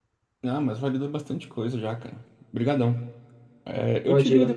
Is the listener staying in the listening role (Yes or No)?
Yes